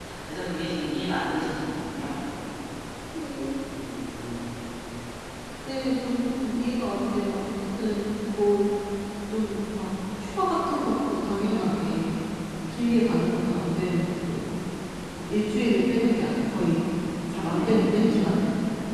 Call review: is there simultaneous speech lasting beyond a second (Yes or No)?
No